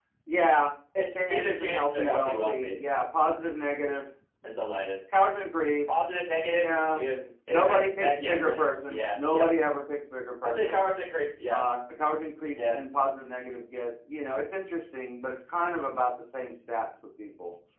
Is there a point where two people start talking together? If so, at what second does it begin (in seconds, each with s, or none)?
1.1 s